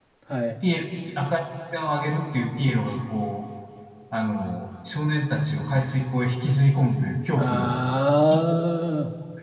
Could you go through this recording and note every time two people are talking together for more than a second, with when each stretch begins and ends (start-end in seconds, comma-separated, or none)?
none